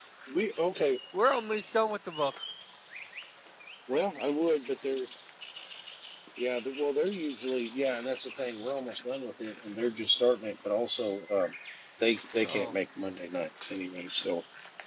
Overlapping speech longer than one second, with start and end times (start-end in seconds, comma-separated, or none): none